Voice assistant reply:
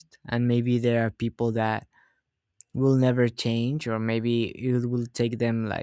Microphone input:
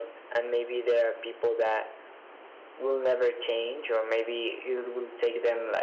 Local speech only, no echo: none

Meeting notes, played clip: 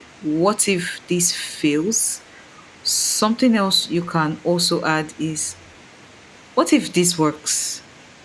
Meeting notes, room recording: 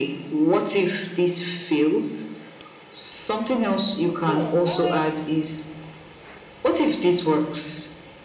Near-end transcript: so um,

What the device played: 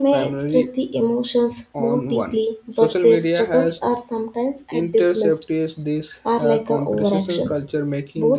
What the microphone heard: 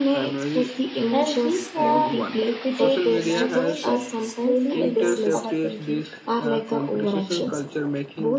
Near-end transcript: And these are repeated imaginations slowly enters our thinking

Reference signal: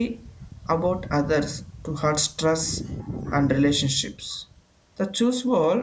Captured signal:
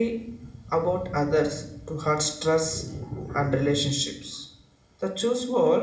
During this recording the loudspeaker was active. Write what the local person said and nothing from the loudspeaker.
none

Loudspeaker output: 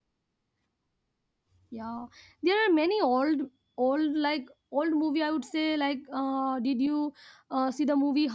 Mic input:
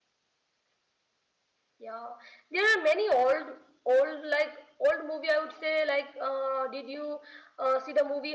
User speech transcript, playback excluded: none

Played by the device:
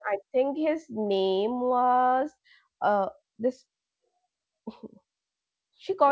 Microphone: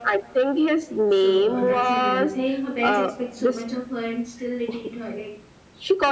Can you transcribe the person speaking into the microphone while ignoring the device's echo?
So uh, that's another thing. Her parents expect so much of her, and still they treat her like,

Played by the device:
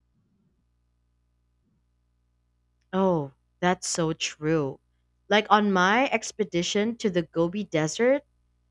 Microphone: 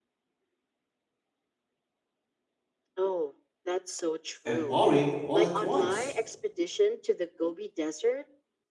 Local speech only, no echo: and boring all at once.

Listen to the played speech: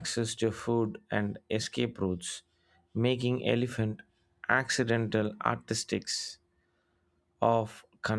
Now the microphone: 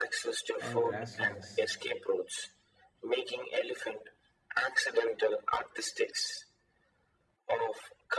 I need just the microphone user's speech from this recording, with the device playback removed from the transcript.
and grasslands

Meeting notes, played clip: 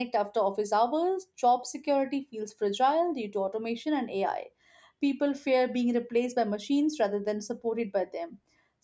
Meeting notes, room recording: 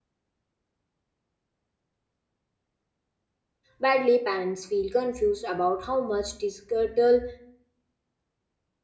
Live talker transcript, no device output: badly. Parents feel confused about how much digital

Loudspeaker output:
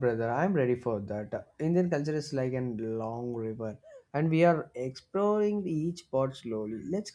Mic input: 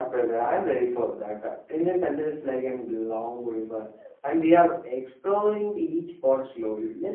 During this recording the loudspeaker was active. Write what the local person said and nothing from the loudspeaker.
none

